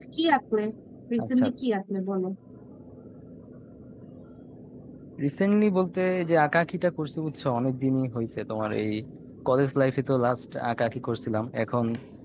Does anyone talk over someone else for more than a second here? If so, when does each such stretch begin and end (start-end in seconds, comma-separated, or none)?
none